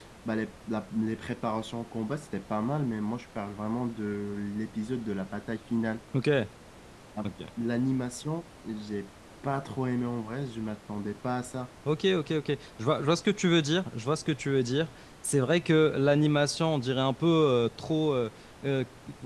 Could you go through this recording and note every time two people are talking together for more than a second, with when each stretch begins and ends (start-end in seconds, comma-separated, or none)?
none